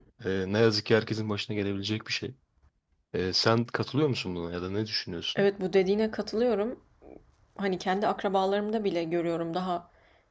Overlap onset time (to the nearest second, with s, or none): none